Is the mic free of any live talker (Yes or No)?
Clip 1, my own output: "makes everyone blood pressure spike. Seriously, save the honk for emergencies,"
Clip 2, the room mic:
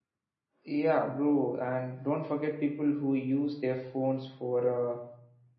No